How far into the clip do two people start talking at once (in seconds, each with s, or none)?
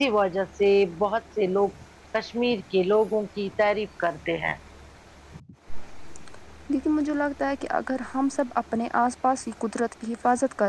none